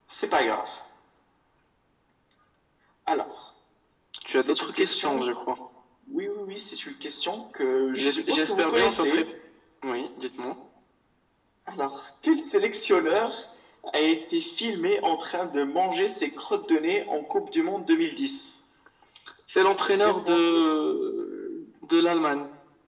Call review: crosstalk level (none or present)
present